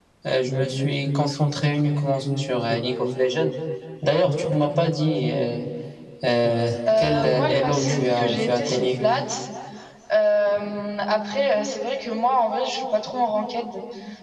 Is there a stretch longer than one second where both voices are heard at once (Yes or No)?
Yes